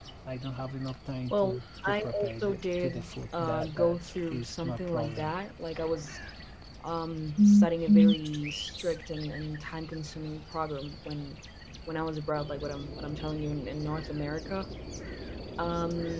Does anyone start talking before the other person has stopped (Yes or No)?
Yes